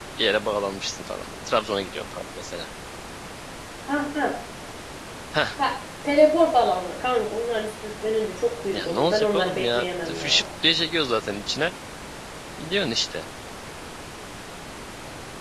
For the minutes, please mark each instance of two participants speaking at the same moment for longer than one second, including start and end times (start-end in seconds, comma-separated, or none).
8.7-10.5